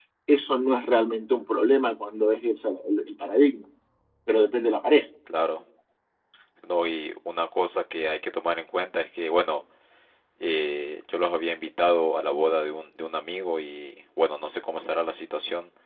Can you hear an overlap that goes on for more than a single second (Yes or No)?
No